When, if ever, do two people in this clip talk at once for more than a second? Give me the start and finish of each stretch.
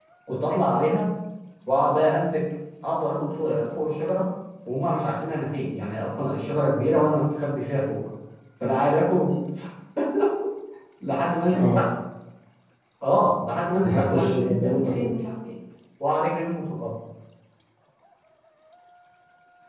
13.8-15.2

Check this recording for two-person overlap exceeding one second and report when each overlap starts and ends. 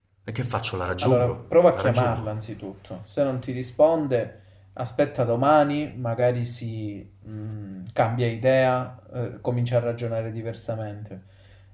1.0-2.3

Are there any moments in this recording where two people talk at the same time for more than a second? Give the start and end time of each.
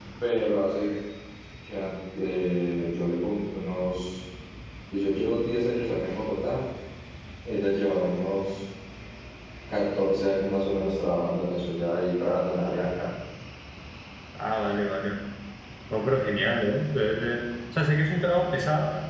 none

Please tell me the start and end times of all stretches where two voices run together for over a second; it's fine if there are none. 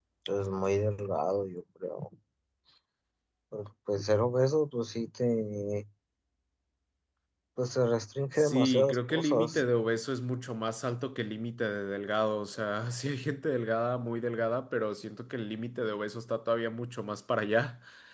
8.4-9.7

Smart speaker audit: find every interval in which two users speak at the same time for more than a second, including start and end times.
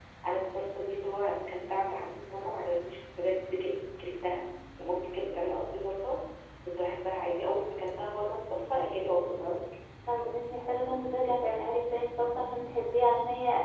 none

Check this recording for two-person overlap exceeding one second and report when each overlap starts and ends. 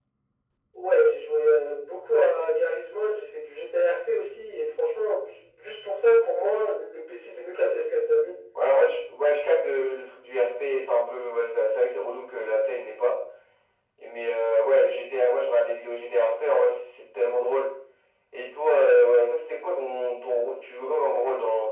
none

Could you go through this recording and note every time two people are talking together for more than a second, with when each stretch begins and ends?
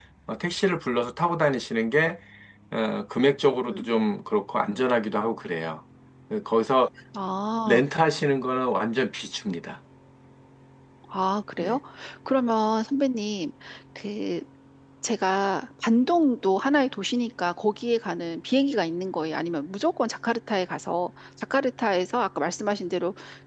none

